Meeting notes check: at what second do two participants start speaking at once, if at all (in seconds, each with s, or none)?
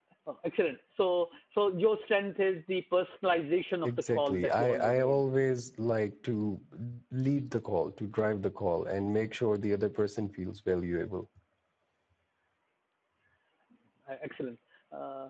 3.8 s